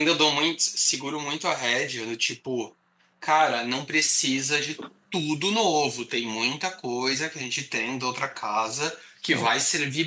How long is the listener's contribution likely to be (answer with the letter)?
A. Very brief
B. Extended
A